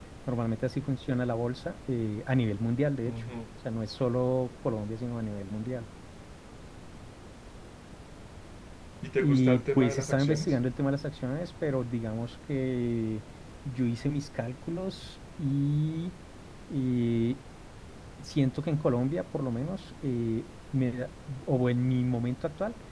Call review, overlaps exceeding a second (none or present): present